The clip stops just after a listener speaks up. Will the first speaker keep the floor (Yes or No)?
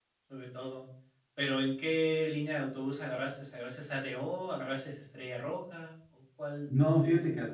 No